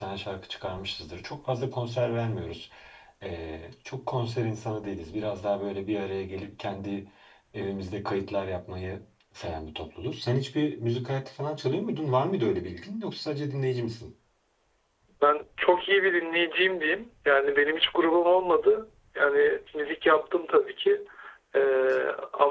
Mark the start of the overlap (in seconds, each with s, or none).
none